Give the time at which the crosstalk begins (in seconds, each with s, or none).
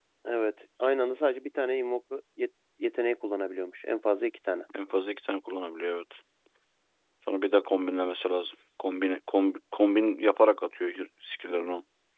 none